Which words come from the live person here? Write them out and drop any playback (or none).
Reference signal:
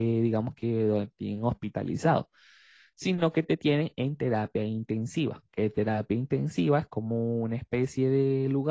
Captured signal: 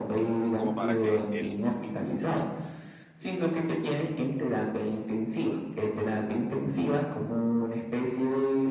como para que el